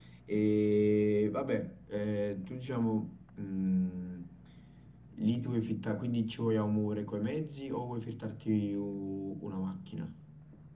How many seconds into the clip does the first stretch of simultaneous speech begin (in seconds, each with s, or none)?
none